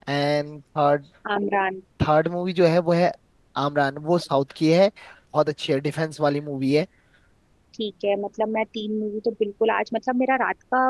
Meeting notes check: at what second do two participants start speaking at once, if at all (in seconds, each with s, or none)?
none